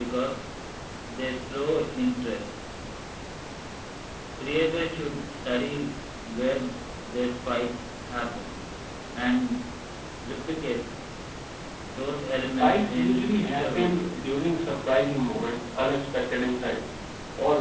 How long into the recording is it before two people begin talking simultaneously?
12 s

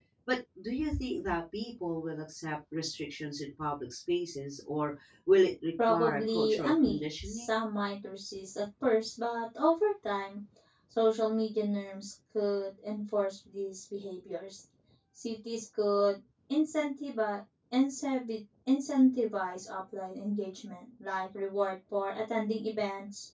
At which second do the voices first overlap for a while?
6 s

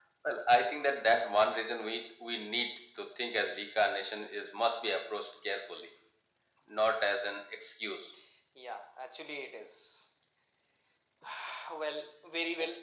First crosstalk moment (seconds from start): none

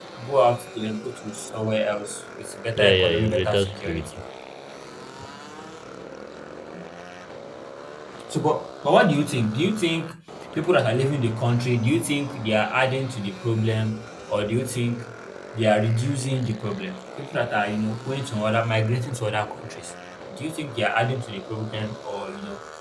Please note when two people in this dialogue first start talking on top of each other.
3 s

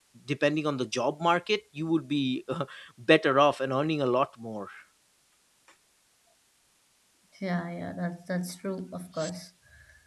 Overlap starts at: none

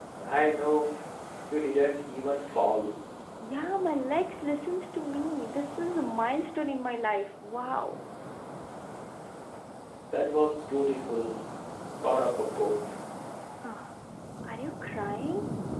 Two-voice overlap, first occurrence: none

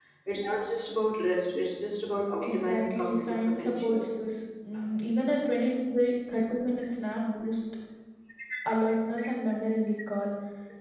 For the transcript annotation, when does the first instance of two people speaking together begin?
2 s

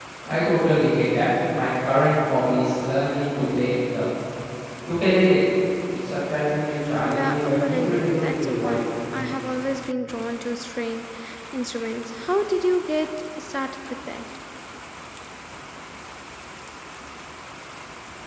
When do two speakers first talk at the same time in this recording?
7 s

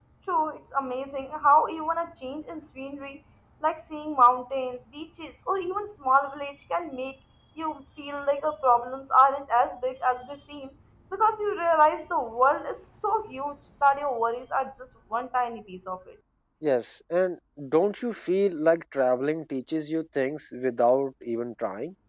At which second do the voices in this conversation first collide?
none

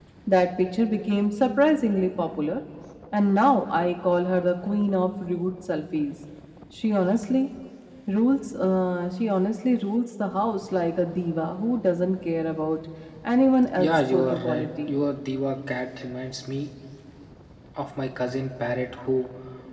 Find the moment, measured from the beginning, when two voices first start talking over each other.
14 s

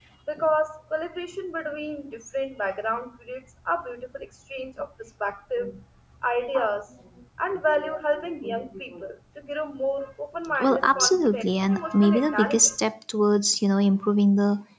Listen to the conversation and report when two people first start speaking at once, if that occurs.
11 s

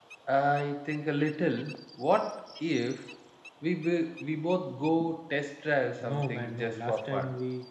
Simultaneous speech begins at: 6 s

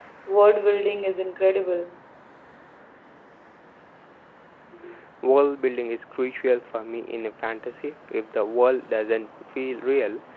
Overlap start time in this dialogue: none

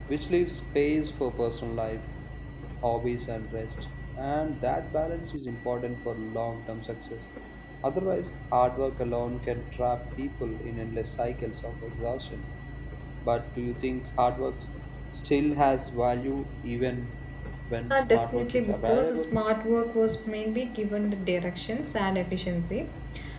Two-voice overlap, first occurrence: 18 s

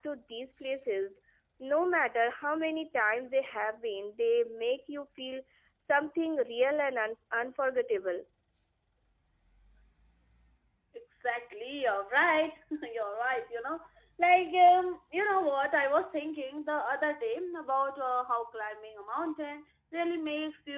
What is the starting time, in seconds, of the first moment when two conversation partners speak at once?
none

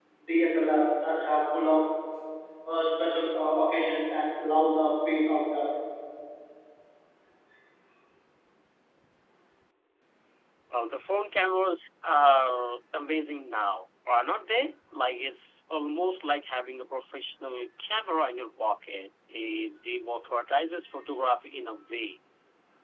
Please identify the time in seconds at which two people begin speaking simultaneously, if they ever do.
none

